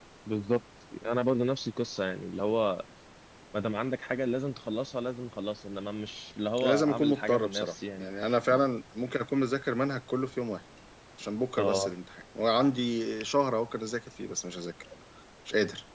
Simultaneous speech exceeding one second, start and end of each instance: 6.6-8.0

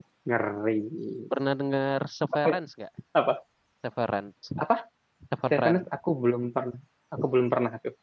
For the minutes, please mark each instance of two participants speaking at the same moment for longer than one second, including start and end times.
none

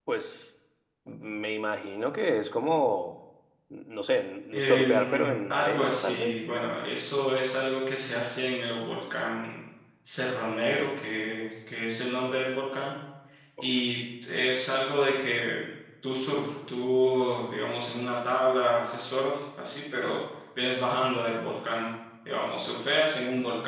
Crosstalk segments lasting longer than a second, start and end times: 4.5-6.3

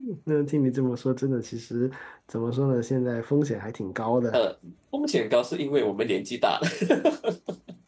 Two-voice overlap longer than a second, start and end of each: none

